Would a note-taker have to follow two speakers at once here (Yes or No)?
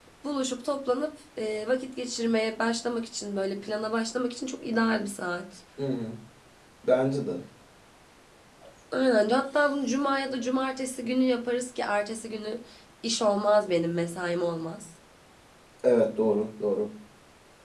No